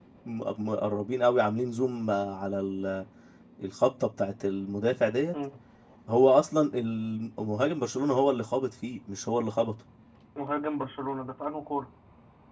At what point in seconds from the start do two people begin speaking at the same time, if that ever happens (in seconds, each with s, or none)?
none